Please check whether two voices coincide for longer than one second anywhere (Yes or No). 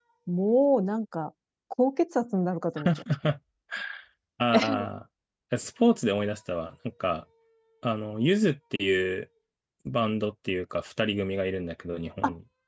No